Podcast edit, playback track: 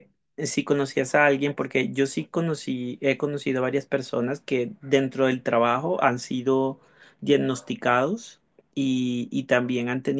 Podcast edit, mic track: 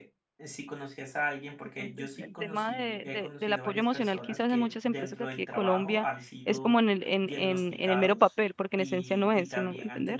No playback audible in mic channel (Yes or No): No